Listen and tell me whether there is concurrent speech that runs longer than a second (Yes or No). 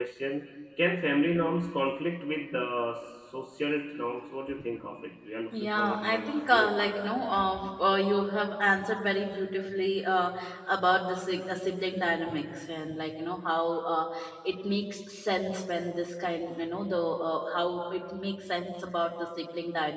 Yes